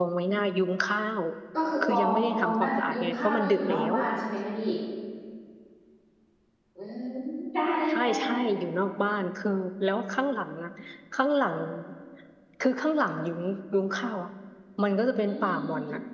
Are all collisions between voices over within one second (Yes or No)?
No